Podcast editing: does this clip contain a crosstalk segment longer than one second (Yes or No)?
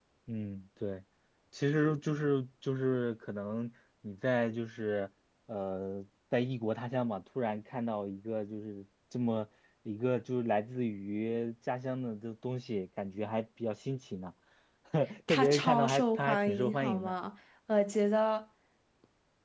Yes